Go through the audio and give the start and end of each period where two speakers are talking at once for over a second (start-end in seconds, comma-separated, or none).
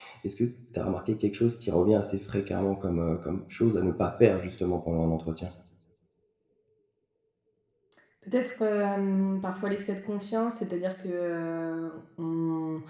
none